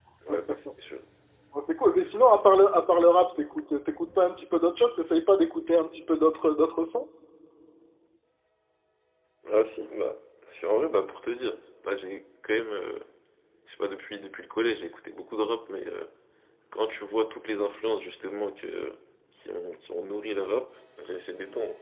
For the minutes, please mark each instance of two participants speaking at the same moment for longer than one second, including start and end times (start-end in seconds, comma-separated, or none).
none